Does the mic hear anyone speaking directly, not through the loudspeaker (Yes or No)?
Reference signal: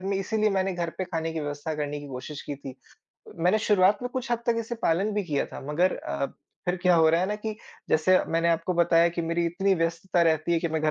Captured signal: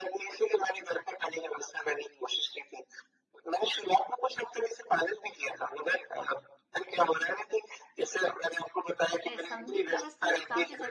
Yes